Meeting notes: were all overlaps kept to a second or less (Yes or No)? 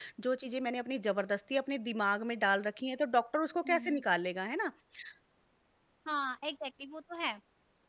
Yes